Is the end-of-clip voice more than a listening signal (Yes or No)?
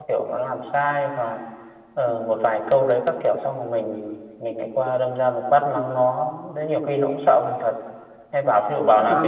No